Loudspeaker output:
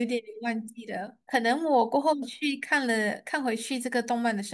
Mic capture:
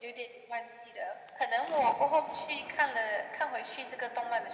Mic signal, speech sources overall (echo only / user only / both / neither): echo only